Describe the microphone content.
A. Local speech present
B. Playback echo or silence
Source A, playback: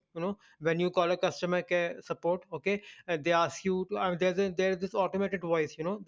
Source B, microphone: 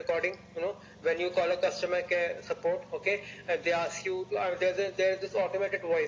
B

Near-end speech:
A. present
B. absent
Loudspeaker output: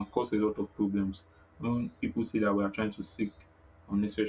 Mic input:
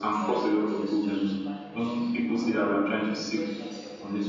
A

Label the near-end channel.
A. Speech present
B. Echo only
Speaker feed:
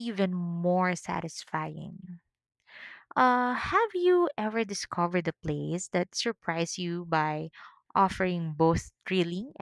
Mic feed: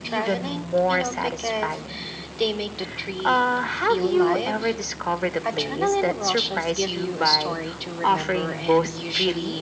A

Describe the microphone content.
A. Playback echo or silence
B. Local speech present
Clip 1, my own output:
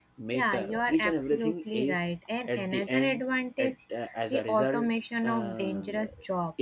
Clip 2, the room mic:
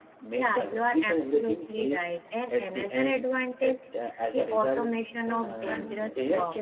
B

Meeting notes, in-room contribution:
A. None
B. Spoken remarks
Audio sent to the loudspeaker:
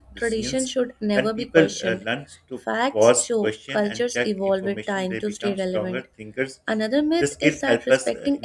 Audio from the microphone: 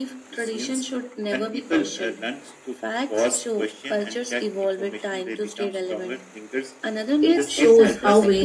B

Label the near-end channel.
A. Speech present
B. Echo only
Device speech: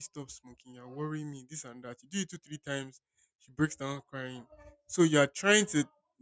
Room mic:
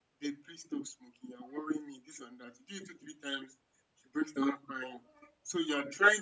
B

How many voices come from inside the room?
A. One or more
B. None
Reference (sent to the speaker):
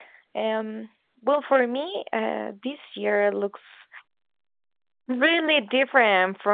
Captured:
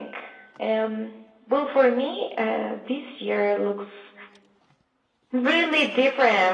B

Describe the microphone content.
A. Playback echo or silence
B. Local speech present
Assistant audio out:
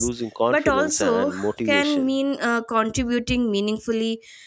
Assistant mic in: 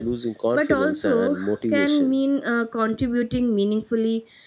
A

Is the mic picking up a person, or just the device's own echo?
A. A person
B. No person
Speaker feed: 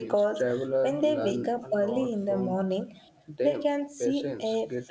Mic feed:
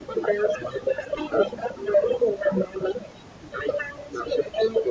B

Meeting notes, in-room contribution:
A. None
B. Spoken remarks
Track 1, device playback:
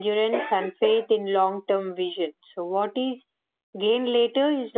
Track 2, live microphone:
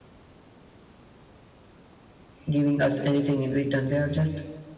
B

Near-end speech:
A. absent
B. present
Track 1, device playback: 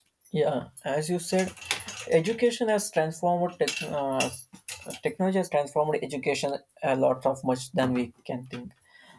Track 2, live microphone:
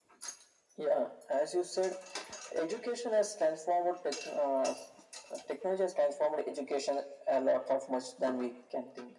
A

